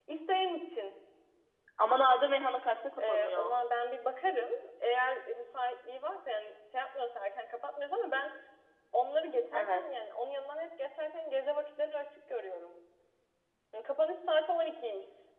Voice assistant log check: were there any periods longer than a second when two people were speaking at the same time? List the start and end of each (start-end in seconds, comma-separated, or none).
none